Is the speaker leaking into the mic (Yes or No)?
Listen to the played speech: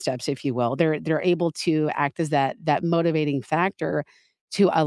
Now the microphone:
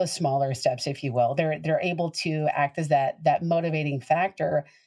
Yes